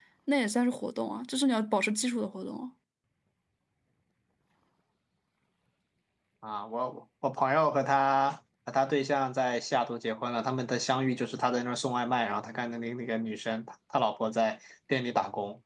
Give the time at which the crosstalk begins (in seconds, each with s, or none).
none